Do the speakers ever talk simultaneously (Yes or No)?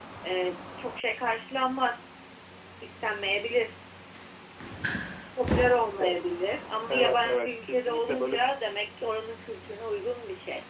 Yes